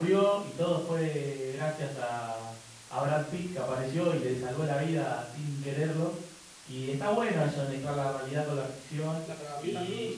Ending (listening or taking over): taking over